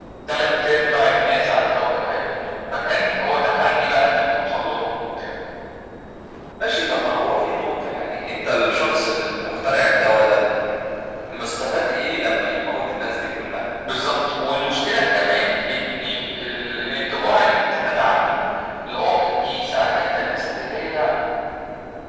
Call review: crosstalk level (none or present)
none